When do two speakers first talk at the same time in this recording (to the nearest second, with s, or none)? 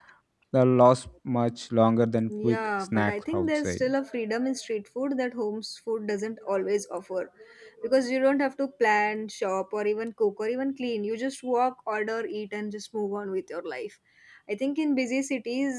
2 s